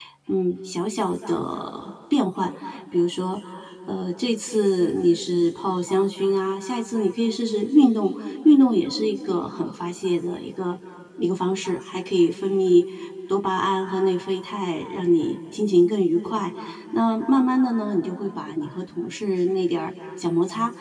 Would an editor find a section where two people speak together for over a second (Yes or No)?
No